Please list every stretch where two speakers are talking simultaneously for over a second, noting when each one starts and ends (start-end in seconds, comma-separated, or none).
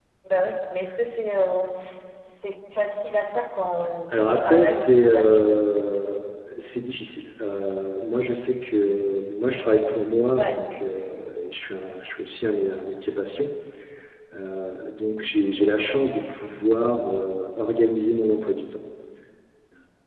4.1-5.5